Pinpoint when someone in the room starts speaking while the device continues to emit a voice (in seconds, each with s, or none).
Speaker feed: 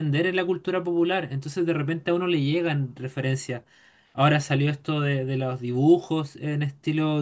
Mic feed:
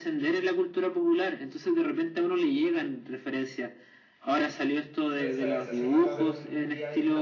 5.0 s